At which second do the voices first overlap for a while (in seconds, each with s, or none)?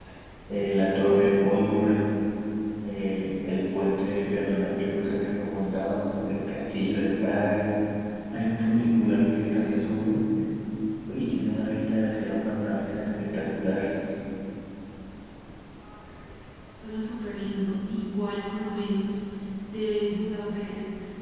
none